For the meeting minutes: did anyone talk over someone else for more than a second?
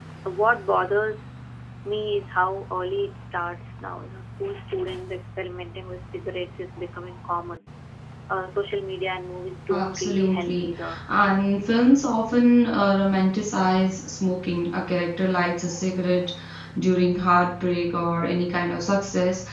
Yes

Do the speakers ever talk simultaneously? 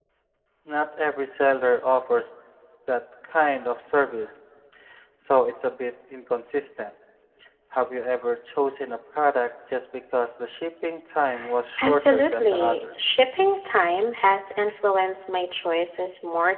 Yes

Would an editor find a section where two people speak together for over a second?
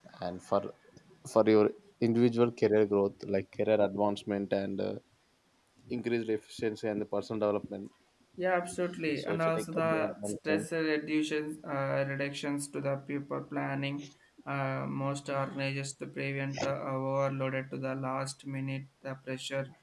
Yes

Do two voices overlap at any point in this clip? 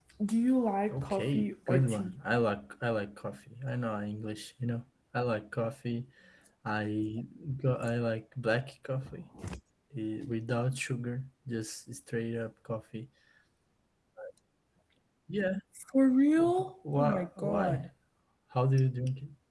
Yes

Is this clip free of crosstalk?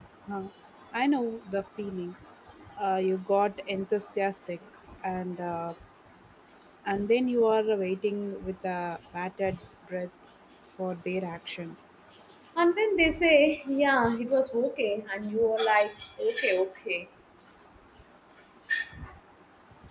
Yes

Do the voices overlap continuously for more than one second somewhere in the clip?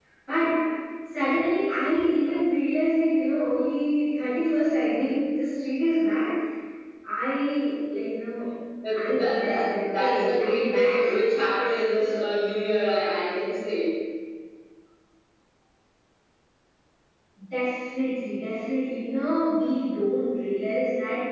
Yes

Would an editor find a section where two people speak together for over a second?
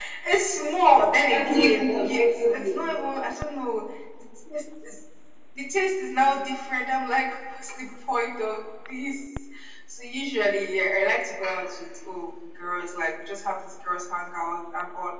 Yes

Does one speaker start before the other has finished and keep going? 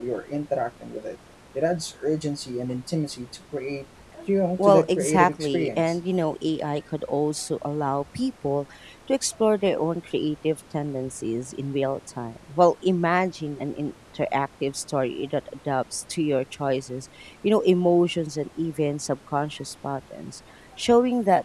Yes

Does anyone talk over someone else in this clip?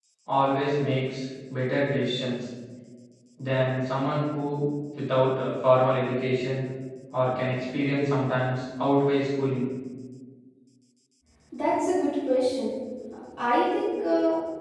No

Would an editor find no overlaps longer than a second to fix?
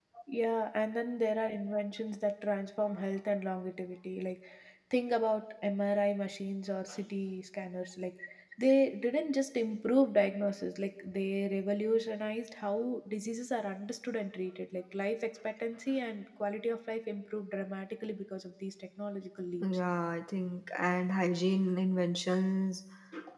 Yes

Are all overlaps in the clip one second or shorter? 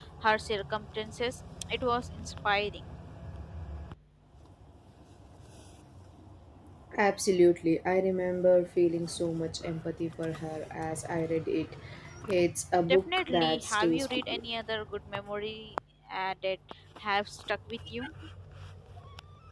No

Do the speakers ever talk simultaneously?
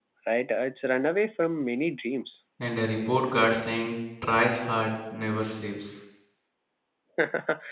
No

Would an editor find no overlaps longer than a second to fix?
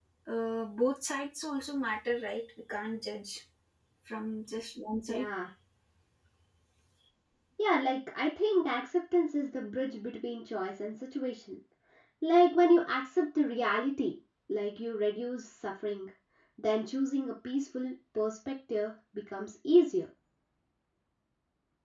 Yes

